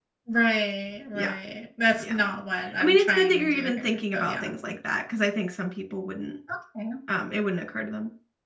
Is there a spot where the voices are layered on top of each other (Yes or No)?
Yes